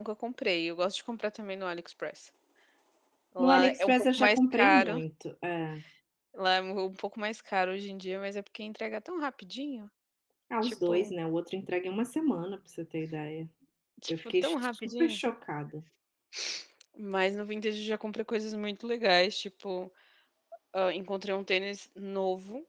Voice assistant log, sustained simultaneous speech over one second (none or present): present